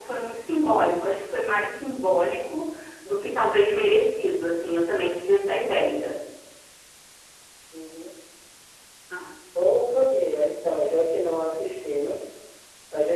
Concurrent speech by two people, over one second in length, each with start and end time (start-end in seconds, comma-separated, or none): none